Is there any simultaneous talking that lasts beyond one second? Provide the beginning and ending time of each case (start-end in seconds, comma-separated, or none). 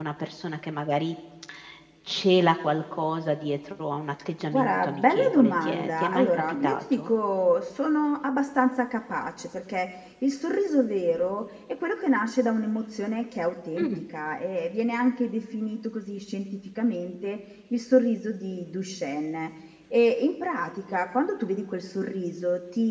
4.5-7.1